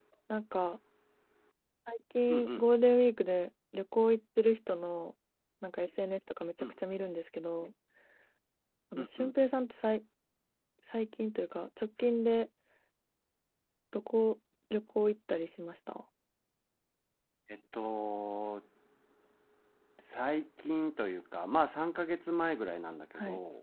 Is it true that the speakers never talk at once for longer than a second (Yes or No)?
Yes